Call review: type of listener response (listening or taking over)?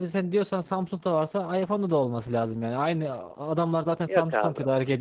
listening